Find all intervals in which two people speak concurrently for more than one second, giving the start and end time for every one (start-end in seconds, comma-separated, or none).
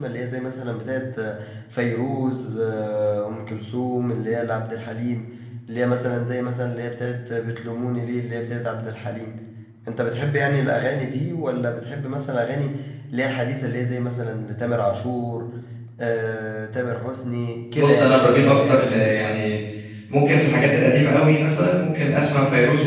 17.8-19.2